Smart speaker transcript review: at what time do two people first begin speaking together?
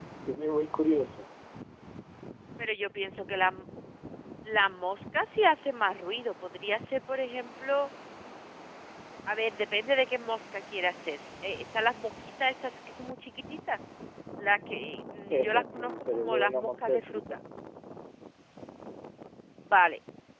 15.3 s

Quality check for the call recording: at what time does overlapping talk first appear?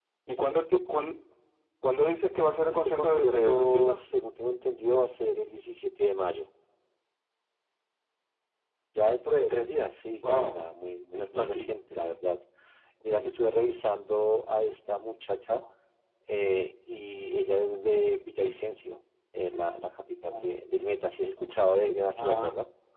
2.7 s

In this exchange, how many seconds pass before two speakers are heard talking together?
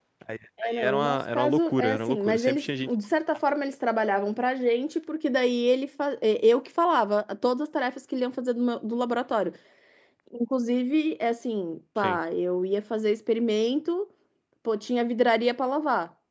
0.6 s

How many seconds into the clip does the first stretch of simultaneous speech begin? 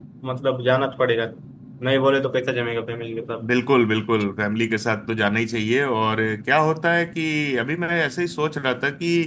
none

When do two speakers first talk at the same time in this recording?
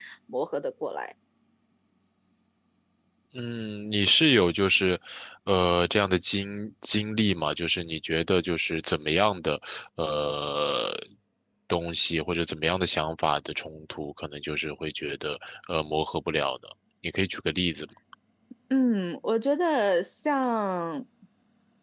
none

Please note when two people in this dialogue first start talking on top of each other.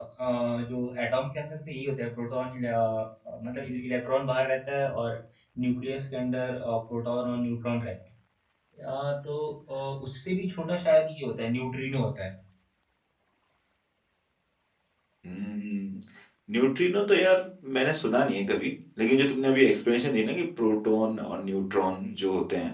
none

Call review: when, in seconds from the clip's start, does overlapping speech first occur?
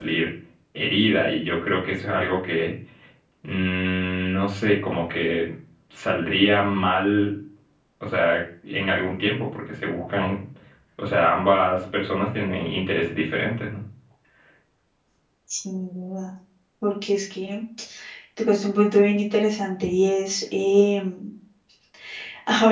none

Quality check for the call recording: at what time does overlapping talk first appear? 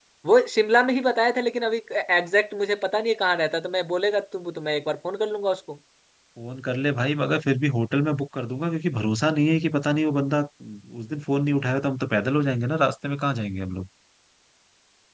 none

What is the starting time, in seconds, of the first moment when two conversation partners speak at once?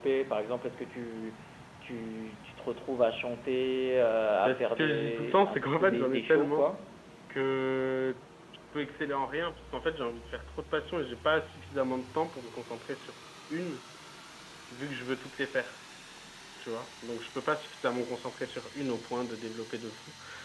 4.4 s

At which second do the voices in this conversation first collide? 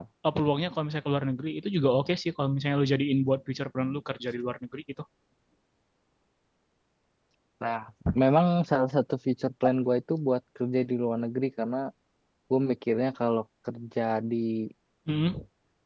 none

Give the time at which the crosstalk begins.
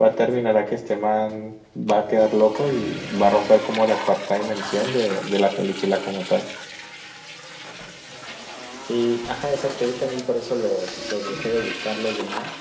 none

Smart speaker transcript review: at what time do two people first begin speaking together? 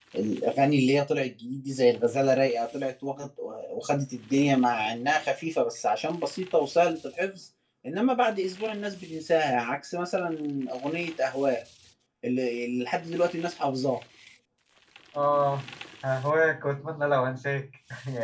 none

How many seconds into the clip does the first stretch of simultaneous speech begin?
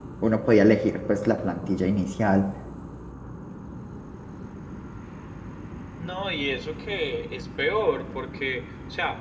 none

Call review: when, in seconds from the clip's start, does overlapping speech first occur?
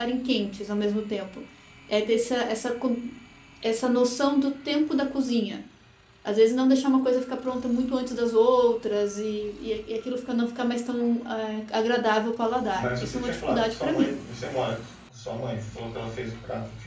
12.8 s

